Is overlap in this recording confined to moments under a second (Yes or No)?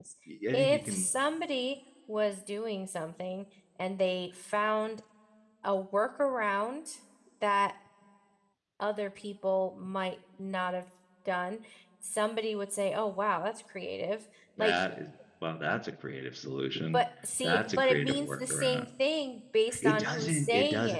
No